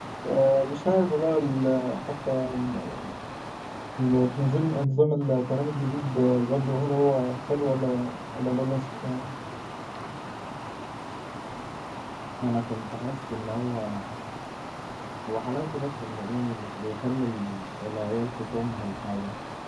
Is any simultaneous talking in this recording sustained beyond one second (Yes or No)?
No